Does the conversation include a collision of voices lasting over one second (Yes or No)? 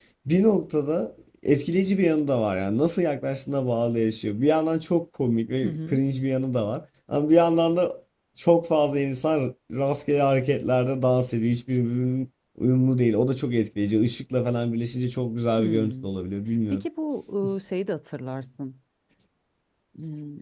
No